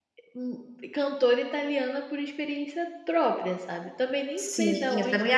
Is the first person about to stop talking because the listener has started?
Yes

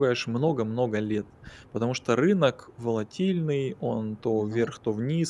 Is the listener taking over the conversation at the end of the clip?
No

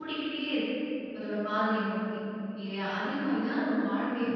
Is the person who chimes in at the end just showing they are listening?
Yes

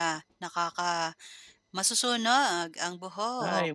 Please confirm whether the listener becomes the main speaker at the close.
Yes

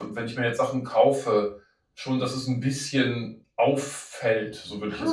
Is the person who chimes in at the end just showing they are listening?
No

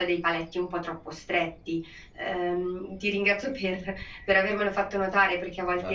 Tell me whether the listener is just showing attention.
Yes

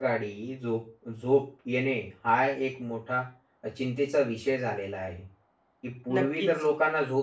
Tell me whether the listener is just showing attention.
Yes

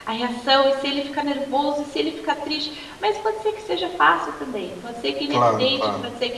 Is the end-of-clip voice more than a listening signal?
No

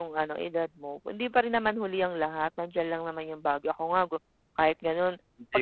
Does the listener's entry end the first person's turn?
Yes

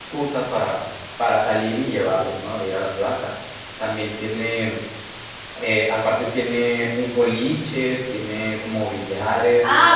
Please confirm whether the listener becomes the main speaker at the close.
Yes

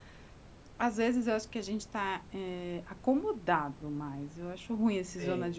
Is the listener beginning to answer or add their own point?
No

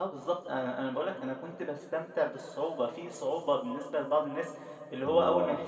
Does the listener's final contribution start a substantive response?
No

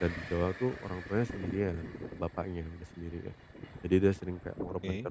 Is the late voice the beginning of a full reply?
No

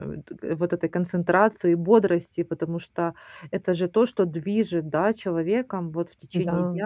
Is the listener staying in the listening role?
Yes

